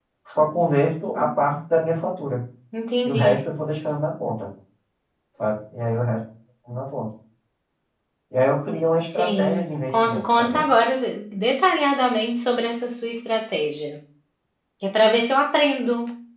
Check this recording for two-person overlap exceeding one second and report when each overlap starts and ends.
9.1-10.7

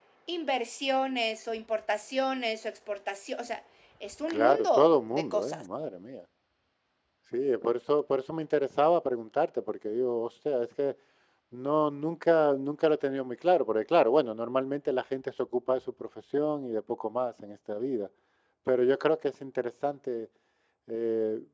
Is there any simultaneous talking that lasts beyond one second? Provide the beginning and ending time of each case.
4.3-5.6

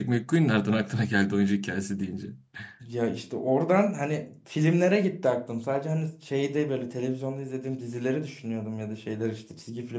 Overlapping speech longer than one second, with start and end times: none

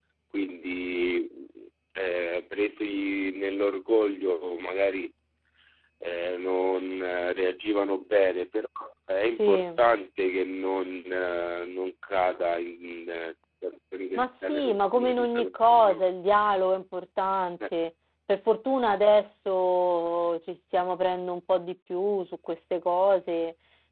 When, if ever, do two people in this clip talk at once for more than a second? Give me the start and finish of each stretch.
14.2-16.0

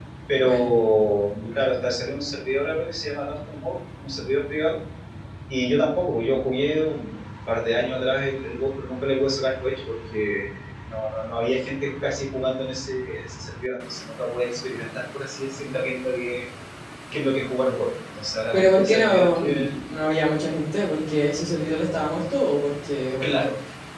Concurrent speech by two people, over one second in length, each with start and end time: 18.5-19.8

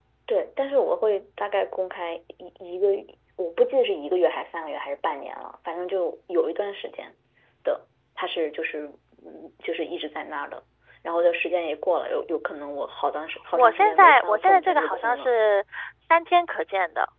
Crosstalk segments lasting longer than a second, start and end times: 13.5-15.3

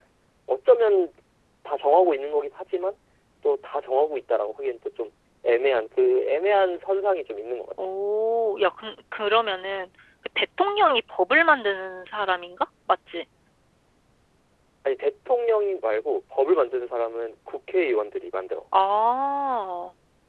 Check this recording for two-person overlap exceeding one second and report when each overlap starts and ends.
none

